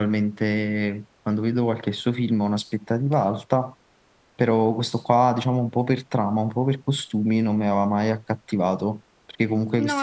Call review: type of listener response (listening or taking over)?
taking over